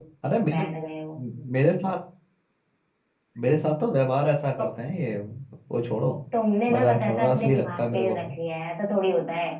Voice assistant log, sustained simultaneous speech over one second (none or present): present